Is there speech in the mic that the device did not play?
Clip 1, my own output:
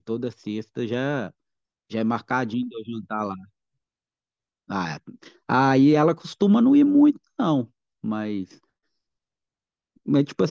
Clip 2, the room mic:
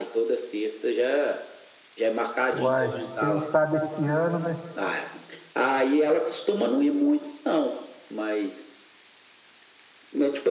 Yes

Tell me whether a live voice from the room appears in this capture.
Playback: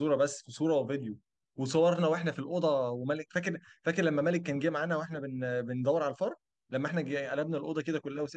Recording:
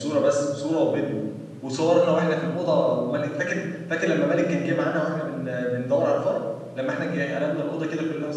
No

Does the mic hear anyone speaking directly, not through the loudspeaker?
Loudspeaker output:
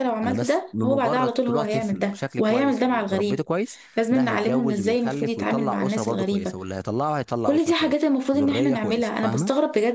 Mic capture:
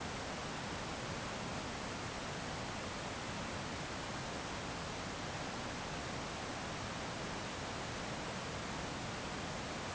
No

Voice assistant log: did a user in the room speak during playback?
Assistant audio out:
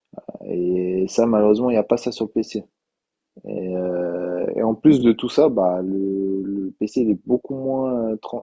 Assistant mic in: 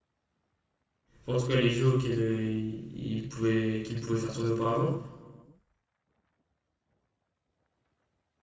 Yes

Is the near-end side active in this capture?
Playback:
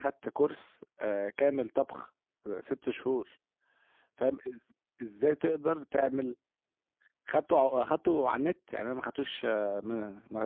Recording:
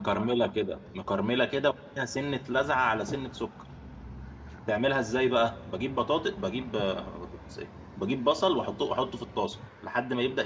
Yes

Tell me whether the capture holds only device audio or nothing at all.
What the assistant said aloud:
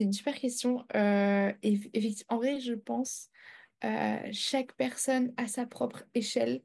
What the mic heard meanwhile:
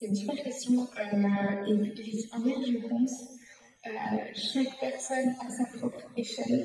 Yes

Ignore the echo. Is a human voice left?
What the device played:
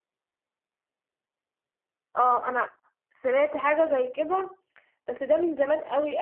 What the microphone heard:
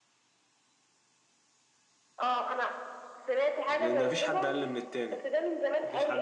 Yes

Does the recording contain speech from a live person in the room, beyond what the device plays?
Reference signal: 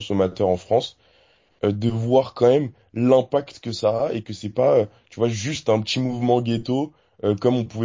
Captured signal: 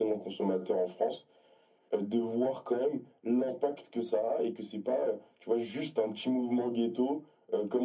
No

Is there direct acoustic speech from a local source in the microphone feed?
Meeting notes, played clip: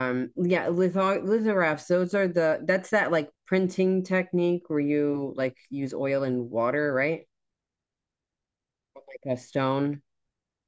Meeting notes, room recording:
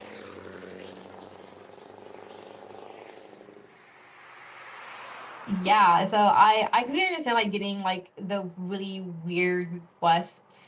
Yes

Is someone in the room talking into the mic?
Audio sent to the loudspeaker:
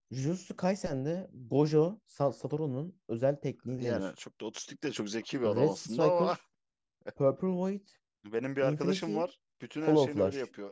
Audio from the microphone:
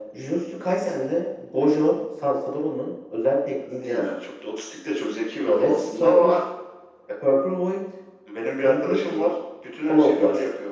No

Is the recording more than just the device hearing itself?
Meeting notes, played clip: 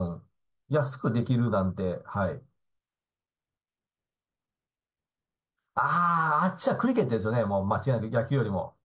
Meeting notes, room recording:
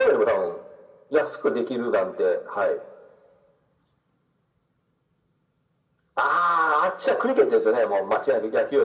No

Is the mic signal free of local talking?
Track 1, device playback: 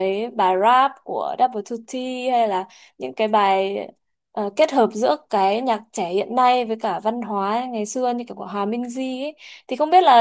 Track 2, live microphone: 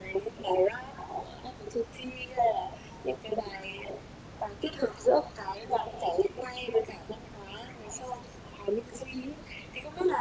Yes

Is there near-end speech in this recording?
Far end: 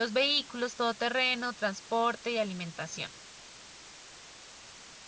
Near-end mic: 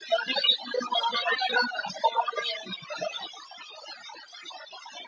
No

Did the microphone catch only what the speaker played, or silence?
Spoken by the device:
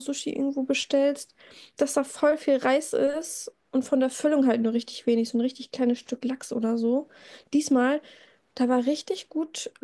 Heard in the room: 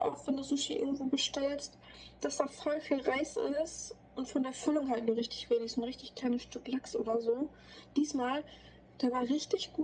Yes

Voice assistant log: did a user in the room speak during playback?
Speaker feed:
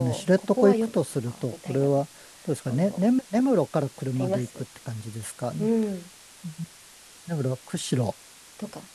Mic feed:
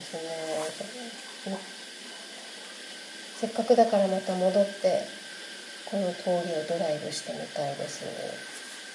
Yes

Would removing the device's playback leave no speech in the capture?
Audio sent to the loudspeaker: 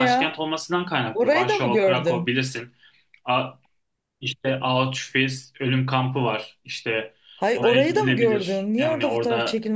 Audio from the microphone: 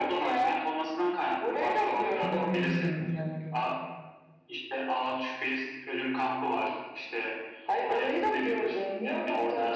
No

